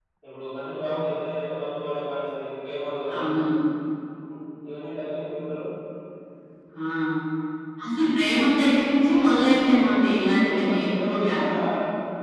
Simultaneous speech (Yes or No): Yes